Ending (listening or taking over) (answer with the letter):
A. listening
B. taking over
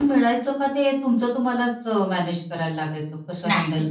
B